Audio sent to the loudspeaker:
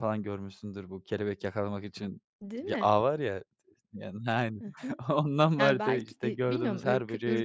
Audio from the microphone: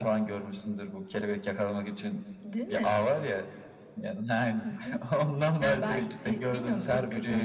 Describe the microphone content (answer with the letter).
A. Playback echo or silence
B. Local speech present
A